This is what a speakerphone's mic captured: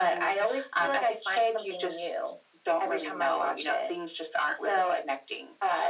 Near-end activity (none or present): none